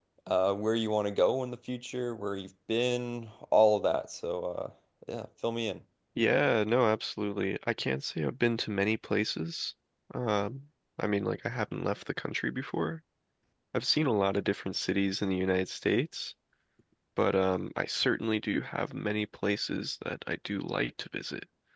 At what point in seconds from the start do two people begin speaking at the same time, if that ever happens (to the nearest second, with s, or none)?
none